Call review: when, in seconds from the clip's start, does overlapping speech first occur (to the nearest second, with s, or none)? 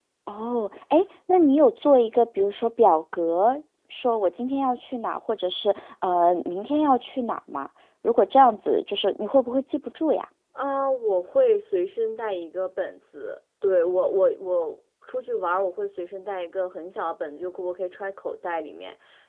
none